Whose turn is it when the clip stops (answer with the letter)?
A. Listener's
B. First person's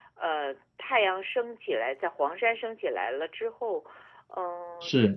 B